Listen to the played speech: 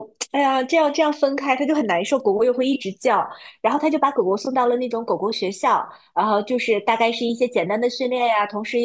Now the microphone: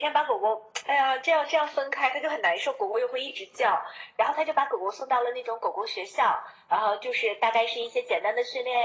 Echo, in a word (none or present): present